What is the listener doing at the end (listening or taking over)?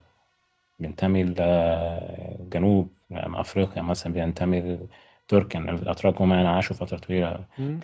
listening